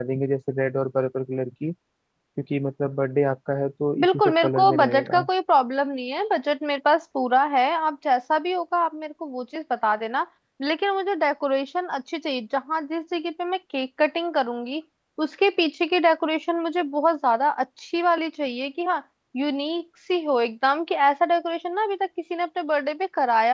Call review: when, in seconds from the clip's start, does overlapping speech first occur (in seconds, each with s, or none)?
4.0 s